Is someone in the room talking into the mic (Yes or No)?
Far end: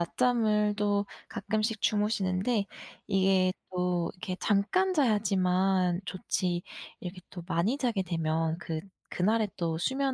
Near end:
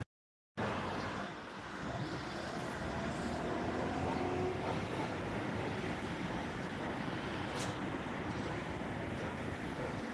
No